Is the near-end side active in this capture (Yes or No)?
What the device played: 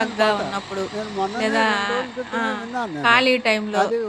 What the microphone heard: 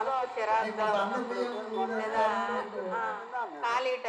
Yes